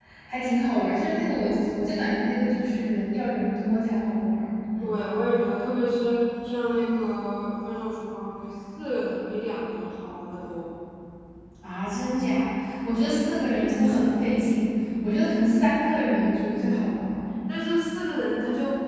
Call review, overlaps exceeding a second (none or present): none